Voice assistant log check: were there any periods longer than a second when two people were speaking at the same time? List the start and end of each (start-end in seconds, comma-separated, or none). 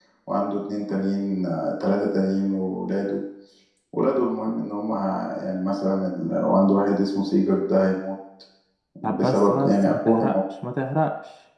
9.0-10.3